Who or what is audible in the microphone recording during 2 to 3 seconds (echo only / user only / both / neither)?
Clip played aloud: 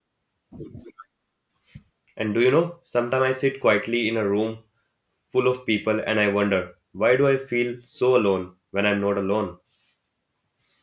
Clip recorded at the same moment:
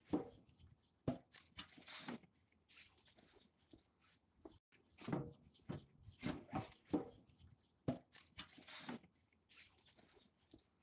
neither